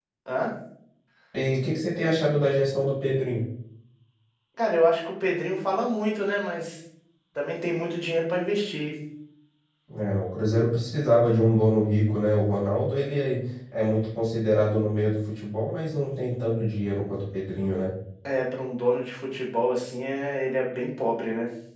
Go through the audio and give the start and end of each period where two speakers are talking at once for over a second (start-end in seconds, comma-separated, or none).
none